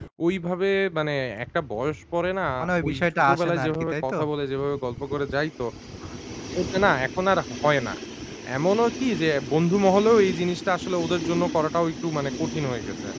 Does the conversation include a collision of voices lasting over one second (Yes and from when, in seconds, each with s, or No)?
Yes, from 2.8 s